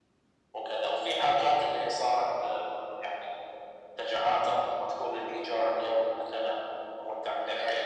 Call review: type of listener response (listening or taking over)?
listening